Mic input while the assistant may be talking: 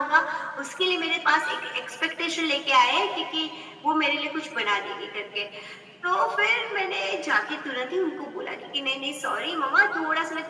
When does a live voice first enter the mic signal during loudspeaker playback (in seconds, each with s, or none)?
none